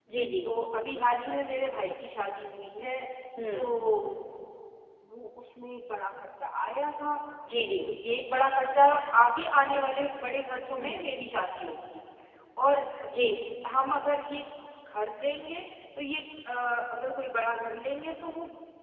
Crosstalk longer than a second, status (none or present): none